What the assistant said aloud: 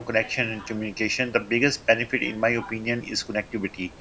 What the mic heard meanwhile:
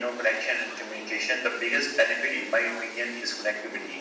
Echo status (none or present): present